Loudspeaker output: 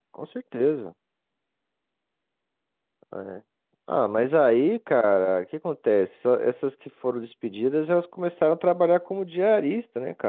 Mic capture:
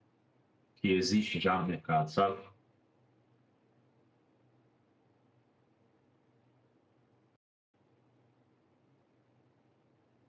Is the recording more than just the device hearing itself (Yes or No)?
Yes